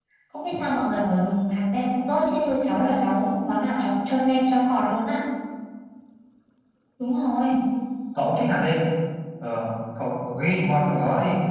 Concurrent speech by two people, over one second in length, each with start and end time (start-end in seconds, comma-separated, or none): none